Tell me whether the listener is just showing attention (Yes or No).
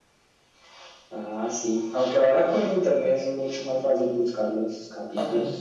No